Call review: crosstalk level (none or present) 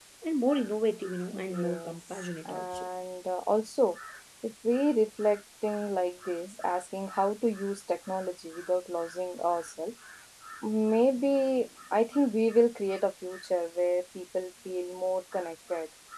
present